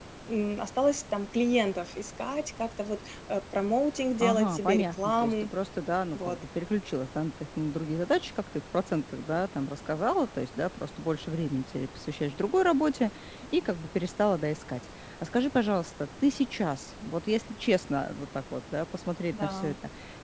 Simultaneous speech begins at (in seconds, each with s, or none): 4.2 s